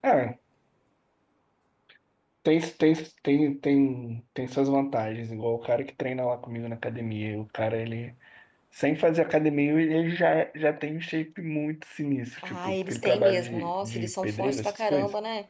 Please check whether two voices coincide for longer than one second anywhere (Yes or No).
Yes